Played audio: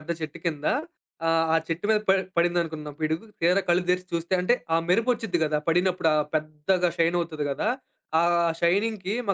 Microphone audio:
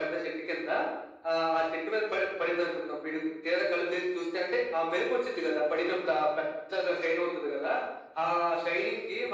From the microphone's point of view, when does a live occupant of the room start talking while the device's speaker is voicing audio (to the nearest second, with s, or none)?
none